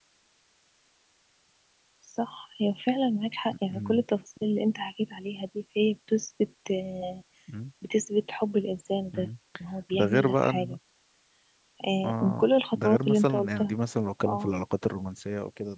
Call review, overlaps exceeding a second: present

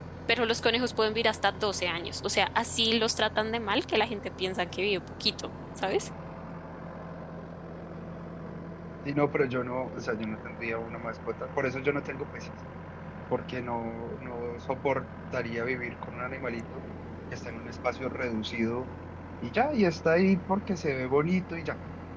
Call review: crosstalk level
none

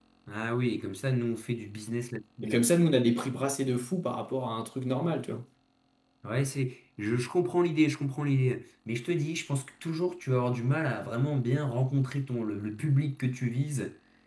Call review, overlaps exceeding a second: none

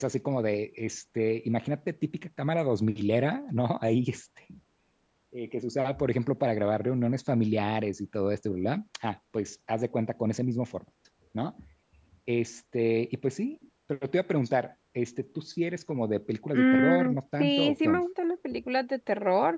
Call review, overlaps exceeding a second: present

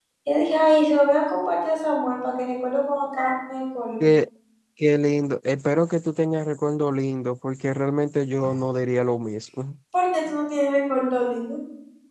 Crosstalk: none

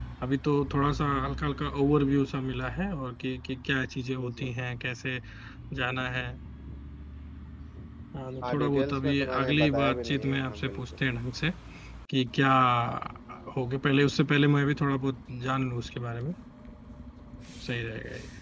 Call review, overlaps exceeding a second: present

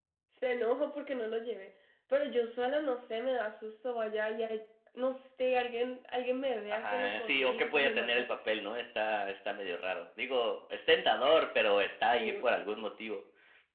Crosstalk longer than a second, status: present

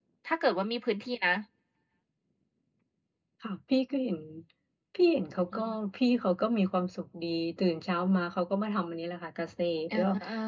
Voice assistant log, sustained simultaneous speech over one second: none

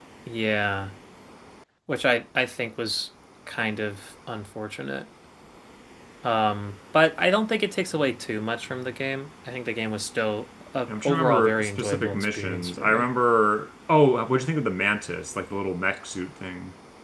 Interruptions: present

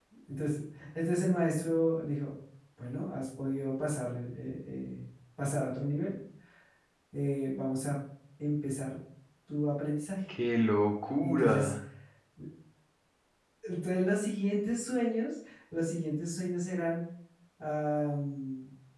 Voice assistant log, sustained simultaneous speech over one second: none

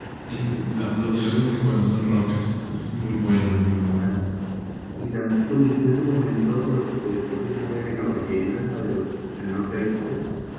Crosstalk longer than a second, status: none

